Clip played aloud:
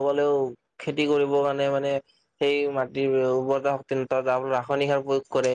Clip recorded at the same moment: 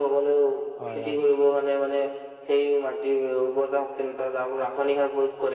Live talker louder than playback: No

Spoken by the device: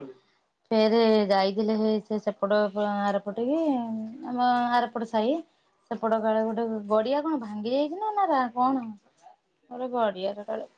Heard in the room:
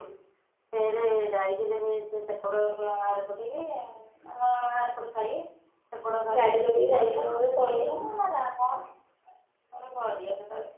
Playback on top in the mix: No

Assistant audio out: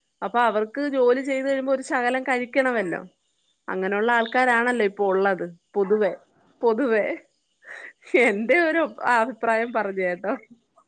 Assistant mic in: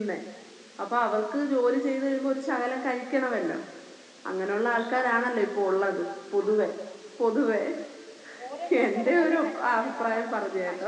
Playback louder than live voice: Yes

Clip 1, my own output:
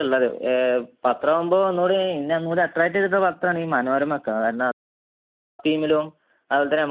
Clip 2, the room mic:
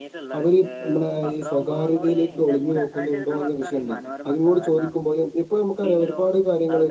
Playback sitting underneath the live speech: Yes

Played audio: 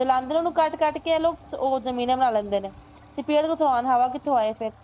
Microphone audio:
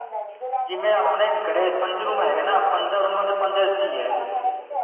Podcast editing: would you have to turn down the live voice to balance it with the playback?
Yes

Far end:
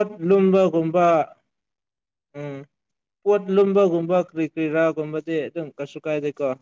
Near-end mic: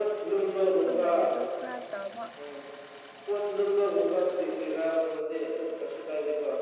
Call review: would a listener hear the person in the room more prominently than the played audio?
No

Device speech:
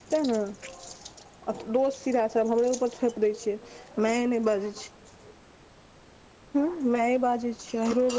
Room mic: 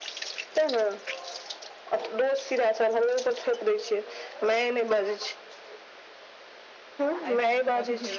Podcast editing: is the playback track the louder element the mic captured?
Yes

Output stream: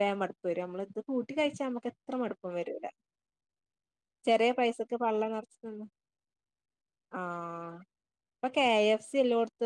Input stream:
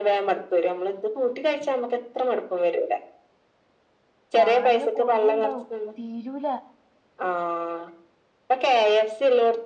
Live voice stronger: No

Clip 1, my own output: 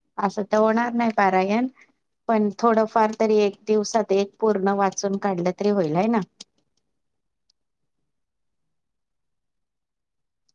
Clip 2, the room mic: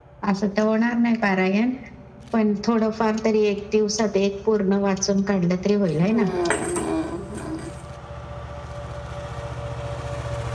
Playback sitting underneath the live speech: No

